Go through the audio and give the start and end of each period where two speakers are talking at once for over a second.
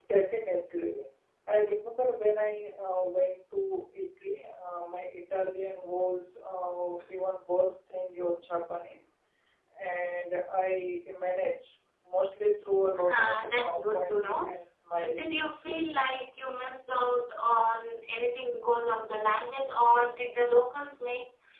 13.0-14.5

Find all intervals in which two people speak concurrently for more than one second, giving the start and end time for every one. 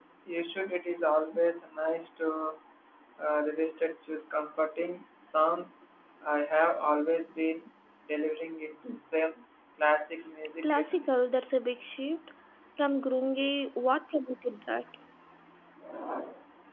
none

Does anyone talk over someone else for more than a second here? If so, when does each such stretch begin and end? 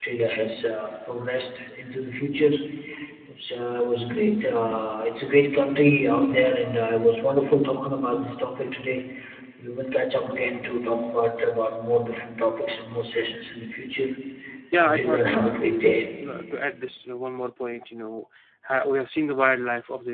14.7-16.0

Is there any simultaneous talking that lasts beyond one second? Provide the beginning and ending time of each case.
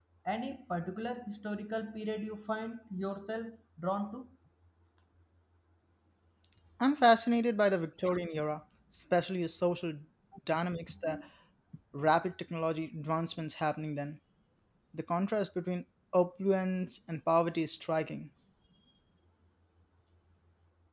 none

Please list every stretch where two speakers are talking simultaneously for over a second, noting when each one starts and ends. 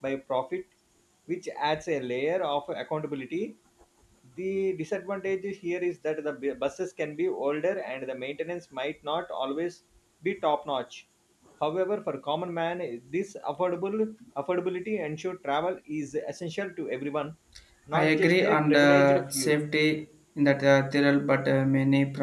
17.9-19.5

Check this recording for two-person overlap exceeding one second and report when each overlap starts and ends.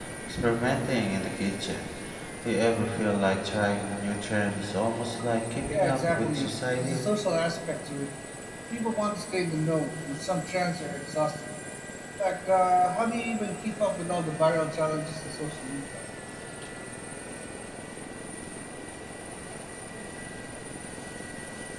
5.7-7.0

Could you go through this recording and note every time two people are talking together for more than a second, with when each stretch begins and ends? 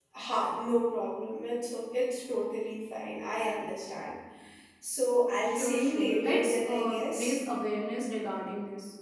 5.4-7.4

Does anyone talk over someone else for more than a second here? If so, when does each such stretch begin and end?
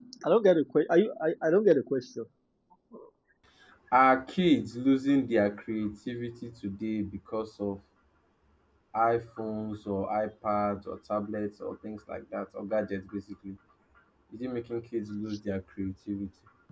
none

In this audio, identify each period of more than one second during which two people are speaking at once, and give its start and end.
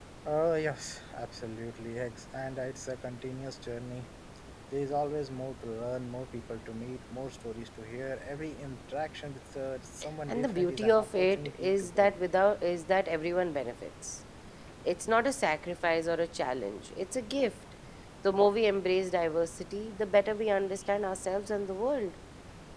10.3-12.2

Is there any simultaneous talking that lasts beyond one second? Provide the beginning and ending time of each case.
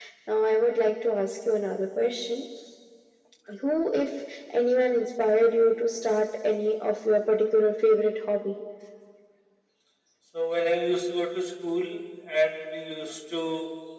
none

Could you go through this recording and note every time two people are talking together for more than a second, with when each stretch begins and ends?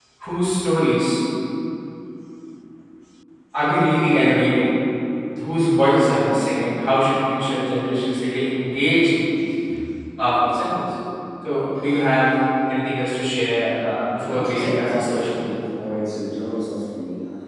14.2-15.4

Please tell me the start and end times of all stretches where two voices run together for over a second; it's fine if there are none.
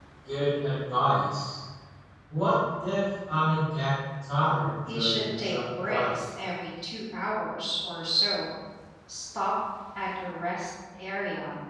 4.9-6.2

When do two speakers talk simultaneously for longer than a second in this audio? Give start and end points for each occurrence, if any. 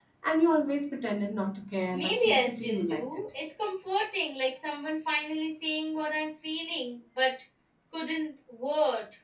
1.9-3.2

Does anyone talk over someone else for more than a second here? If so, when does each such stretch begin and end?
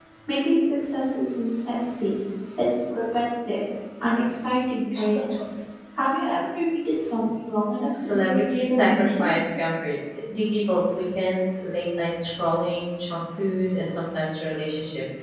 8.0-9.3

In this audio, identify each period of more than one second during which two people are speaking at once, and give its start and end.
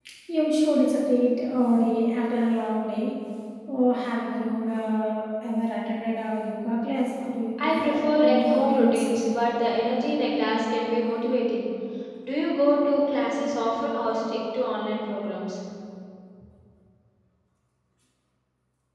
7.8-9.0

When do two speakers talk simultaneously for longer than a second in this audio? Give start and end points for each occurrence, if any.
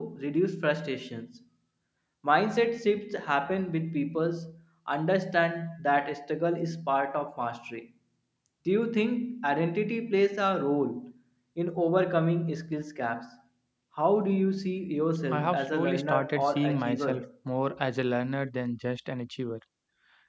15.3-17.2

